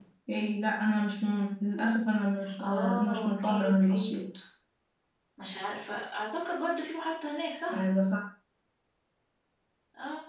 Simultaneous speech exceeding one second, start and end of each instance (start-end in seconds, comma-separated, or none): 2.6-4.1